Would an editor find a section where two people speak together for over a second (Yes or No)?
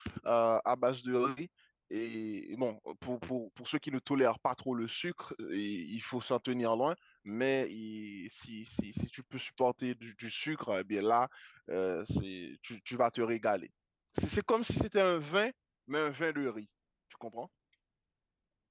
No